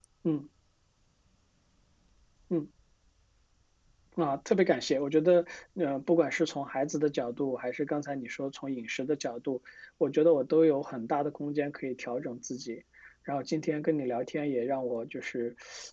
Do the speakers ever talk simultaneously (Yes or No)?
No